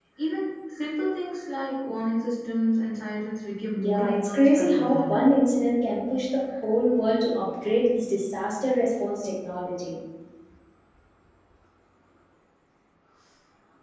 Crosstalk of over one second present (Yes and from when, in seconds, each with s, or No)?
Yes, from 3.8 s